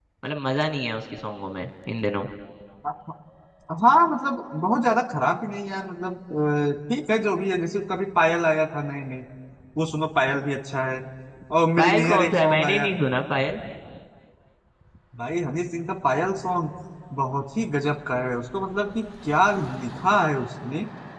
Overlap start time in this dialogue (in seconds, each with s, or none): 11.8 s